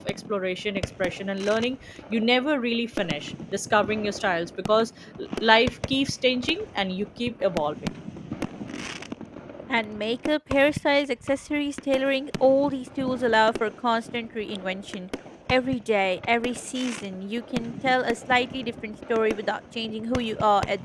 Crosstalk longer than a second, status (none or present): none